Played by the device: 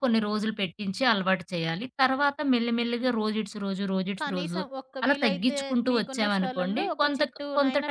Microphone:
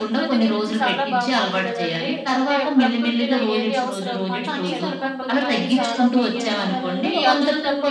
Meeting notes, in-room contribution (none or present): present